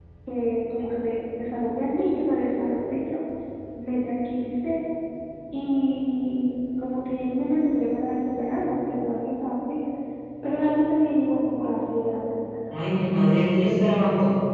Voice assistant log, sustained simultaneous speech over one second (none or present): none